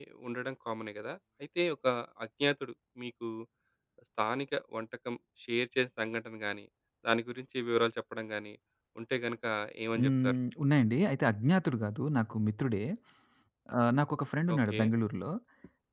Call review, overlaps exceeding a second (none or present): none